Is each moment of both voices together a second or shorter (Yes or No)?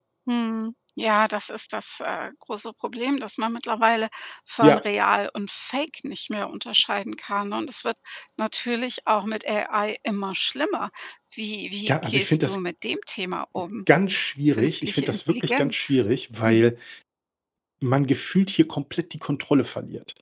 No